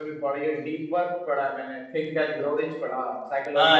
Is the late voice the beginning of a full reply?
Yes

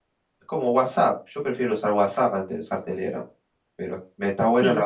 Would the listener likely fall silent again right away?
Yes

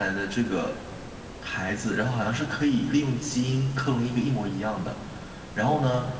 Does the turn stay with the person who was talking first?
Yes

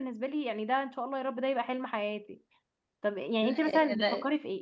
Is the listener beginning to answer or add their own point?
No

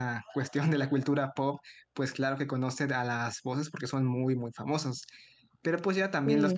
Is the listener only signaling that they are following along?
Yes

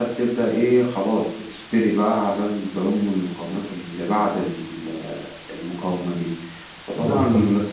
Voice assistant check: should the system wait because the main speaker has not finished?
Yes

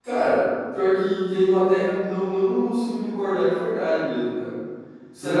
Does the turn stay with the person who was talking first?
No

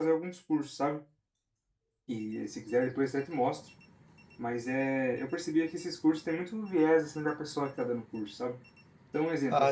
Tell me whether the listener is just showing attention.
Yes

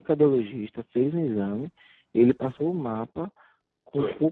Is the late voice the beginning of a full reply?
No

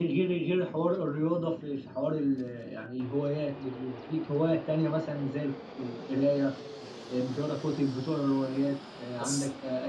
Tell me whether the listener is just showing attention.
Yes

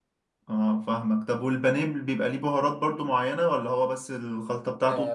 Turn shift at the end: Yes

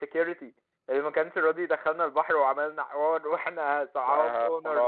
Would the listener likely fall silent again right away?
No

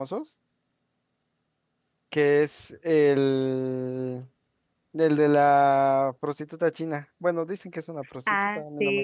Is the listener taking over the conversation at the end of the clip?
Yes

